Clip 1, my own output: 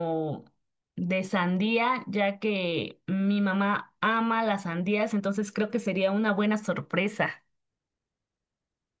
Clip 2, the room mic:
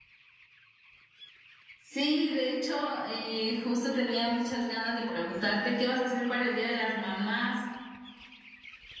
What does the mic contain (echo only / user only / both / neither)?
user only